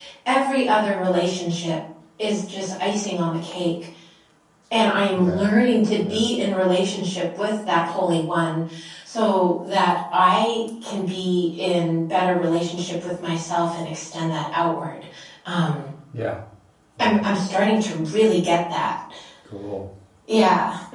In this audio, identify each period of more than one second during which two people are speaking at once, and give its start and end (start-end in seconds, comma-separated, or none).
none